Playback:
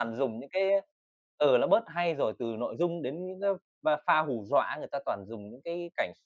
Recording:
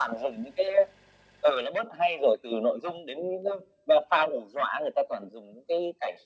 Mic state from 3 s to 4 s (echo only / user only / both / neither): echo only